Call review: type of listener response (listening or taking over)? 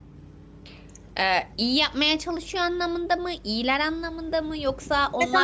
taking over